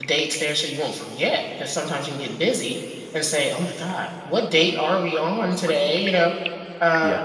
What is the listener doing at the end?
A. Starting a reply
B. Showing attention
B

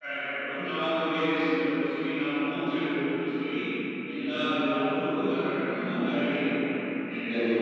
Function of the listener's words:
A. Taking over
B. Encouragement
A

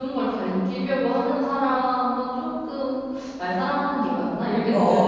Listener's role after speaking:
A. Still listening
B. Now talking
B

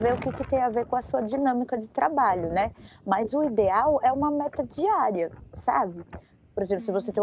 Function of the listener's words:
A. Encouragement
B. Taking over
A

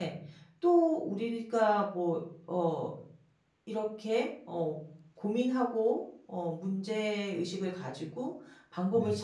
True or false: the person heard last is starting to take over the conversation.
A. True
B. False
B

